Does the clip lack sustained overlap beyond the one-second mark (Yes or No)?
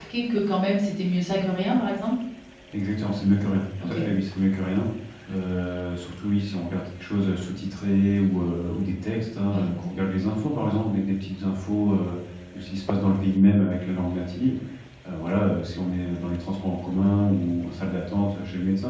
Yes